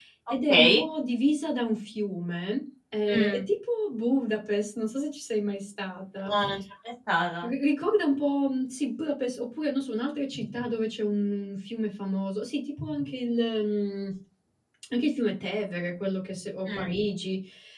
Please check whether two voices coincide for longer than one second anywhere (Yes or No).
No